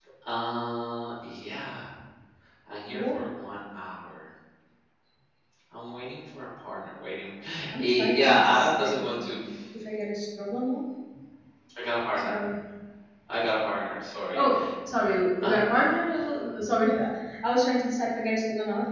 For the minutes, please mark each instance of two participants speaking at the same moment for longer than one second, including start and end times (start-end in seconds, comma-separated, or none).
7.8-9.4